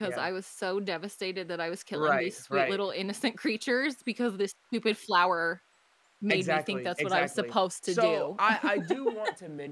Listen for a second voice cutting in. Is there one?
Yes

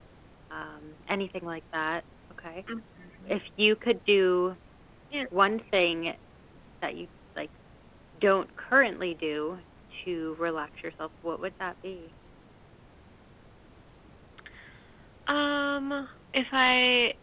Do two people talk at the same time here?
No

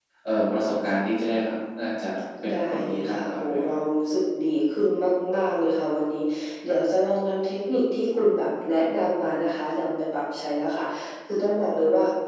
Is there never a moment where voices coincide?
No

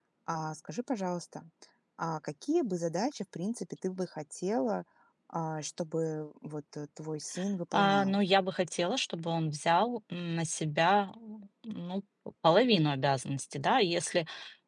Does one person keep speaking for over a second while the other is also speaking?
No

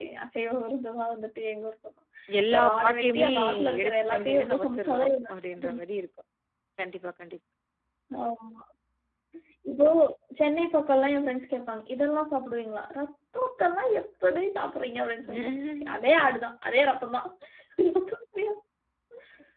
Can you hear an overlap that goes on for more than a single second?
Yes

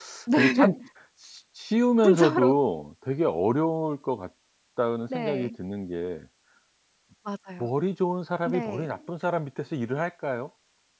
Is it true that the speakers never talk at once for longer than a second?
Yes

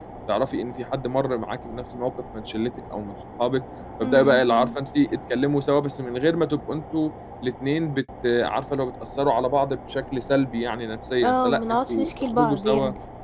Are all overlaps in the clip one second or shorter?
No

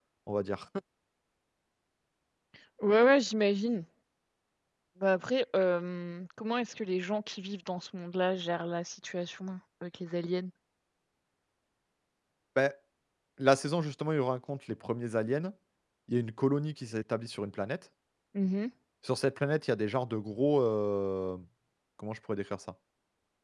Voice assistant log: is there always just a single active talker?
Yes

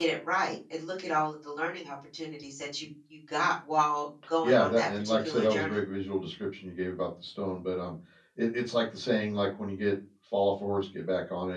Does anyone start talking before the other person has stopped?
Yes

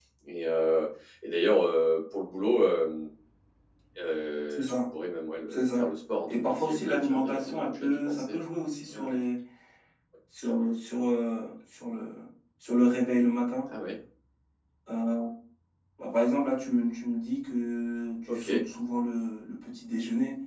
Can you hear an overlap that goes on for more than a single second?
Yes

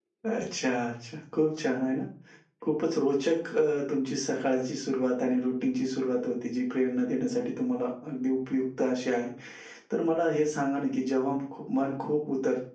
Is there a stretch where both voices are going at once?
No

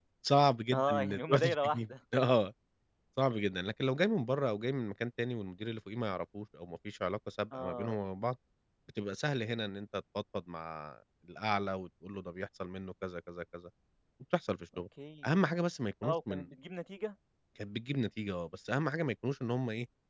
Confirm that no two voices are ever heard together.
No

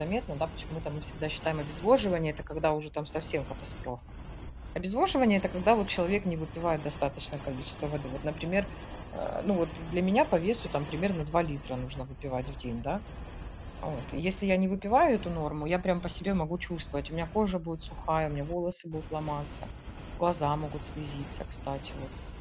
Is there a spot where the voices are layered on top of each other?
No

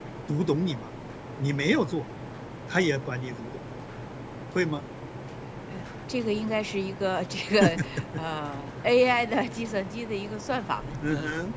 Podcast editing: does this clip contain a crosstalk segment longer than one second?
No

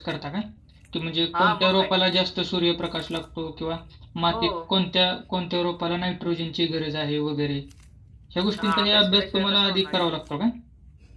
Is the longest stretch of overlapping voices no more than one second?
No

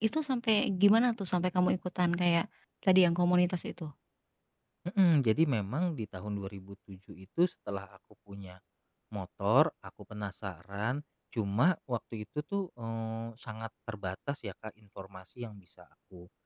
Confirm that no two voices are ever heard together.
Yes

